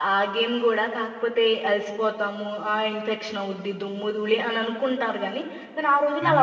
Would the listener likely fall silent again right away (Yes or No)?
Yes